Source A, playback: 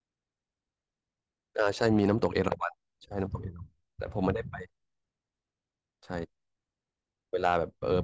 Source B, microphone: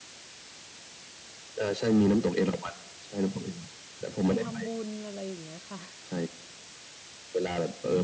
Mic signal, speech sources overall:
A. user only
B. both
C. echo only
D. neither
B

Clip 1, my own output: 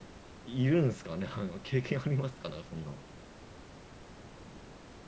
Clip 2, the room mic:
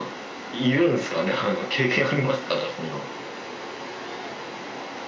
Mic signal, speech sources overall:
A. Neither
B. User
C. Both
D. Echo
D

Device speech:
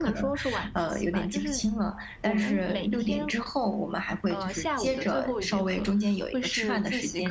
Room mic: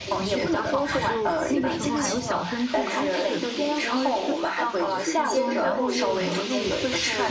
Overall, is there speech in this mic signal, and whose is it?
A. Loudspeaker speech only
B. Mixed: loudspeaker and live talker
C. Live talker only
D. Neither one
B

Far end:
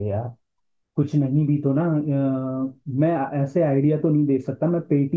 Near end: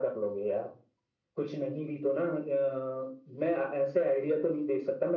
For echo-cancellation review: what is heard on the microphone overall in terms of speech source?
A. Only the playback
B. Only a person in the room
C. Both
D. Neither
A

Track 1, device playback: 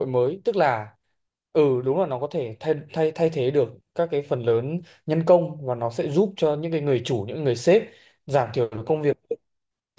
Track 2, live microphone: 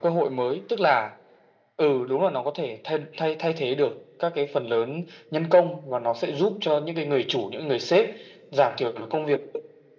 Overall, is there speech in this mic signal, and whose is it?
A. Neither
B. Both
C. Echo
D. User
C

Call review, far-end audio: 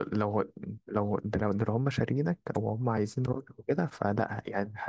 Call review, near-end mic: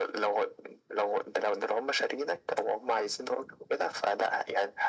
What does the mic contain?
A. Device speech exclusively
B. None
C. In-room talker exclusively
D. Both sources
A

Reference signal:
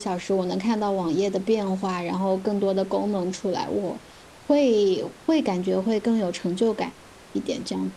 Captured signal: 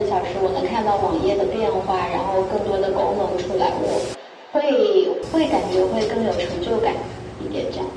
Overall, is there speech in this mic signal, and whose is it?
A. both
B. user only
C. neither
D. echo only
D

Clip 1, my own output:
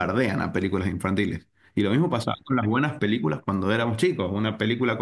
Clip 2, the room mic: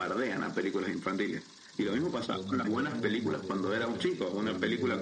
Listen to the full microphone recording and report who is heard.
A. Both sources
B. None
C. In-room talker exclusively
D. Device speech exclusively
A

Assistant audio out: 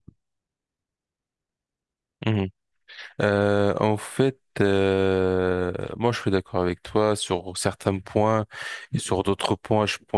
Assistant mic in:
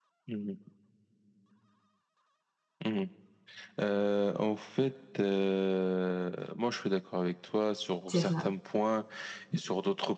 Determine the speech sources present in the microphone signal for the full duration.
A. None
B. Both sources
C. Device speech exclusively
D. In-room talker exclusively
B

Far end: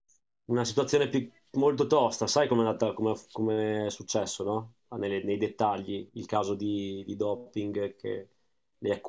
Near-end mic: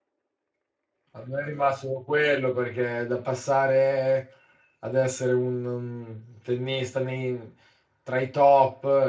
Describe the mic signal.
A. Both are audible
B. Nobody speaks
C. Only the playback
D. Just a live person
D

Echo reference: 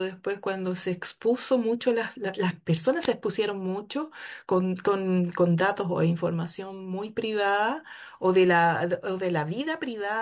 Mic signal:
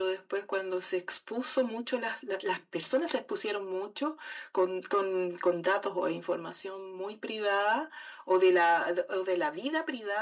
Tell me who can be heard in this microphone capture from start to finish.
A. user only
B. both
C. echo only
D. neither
C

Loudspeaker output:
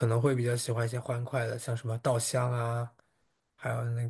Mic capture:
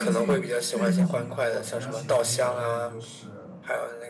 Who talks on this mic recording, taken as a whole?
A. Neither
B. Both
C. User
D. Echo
B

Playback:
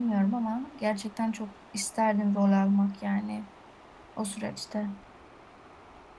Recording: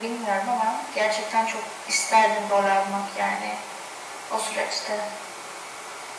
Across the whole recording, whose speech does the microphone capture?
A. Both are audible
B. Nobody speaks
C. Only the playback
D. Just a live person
C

